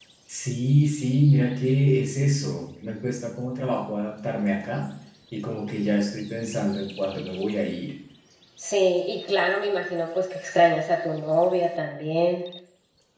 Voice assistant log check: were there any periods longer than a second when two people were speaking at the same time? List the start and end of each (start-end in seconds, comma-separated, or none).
none